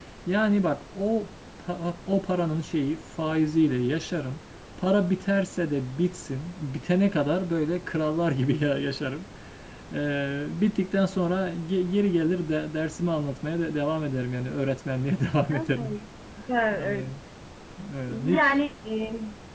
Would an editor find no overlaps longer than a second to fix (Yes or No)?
Yes